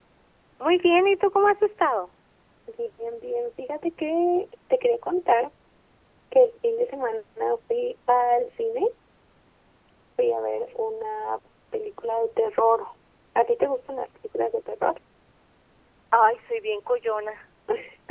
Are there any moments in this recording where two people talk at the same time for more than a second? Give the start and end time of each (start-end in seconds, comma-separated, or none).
none